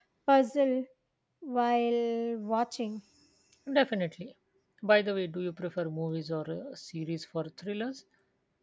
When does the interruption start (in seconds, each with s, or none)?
none